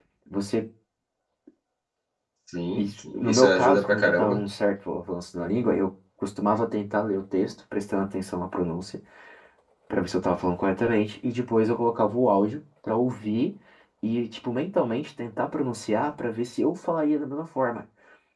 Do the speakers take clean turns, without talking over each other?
No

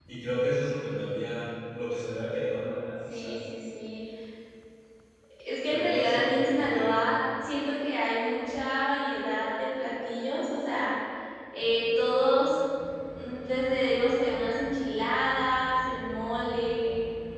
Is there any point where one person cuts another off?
Yes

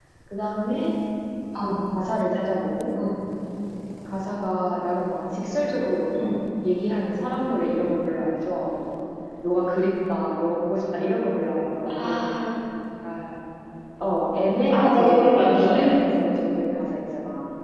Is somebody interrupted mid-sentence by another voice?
Yes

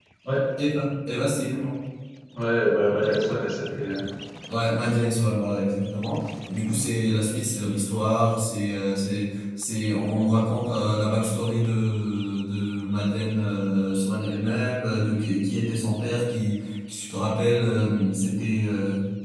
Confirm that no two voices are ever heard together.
Yes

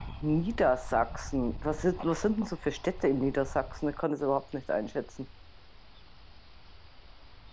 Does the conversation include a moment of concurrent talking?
No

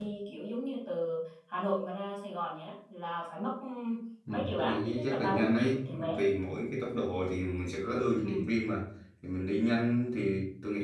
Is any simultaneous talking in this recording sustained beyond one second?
Yes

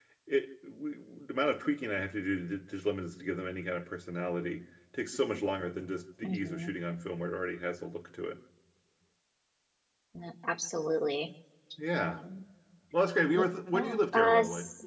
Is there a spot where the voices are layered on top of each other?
Yes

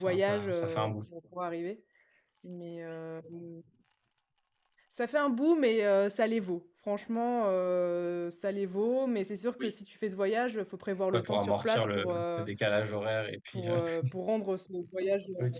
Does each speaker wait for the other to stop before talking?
No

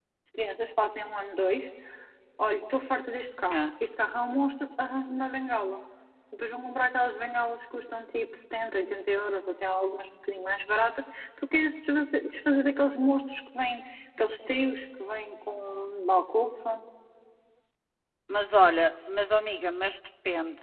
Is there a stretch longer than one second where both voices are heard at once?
No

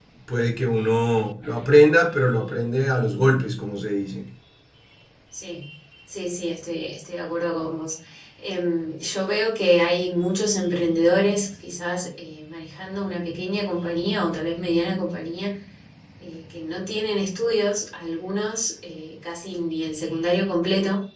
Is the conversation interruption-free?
Yes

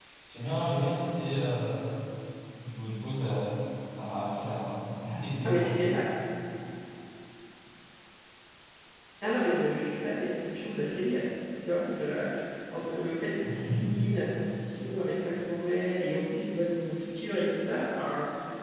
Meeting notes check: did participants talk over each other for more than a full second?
No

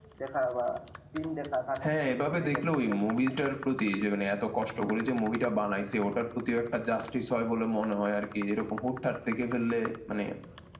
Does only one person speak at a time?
No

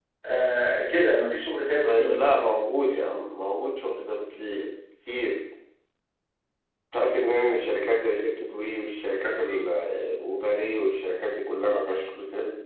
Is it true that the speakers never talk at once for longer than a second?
Yes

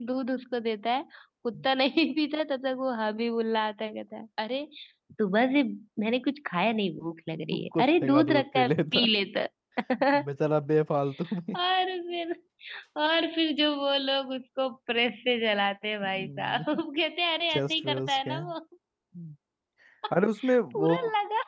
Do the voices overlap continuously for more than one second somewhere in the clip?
Yes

